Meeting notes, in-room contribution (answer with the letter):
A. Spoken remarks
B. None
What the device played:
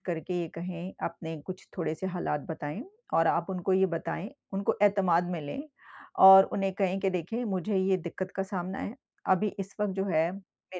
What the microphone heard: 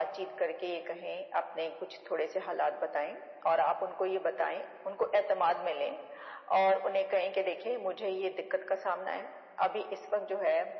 B